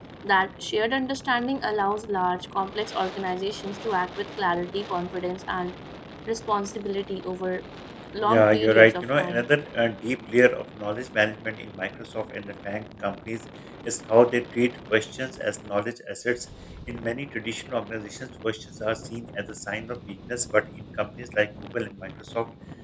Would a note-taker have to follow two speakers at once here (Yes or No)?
Yes